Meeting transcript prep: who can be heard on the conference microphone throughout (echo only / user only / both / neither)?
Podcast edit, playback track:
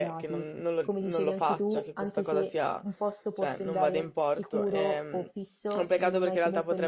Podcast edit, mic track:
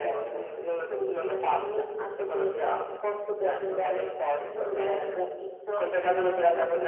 echo only